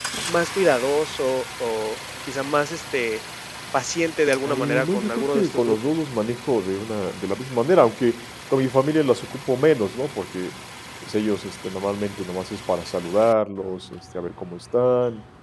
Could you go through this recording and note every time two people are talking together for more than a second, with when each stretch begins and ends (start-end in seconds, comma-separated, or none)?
4.5-5.8